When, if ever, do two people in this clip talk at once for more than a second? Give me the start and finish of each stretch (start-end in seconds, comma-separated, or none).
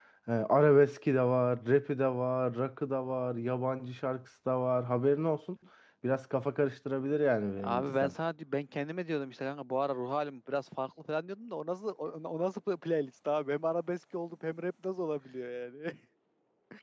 none